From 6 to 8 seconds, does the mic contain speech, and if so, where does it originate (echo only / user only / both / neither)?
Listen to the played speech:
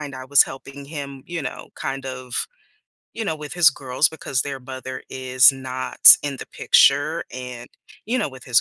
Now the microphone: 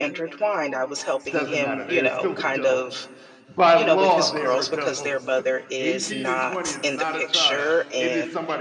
both